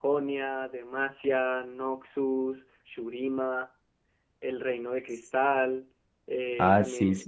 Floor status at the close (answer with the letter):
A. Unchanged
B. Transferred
B